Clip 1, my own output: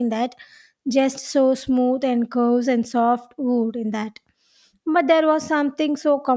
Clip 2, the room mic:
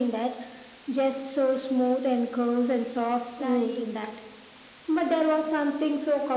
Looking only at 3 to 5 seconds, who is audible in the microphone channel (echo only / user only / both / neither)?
both